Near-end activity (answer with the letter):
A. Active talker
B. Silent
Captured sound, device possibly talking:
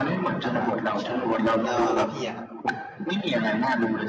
A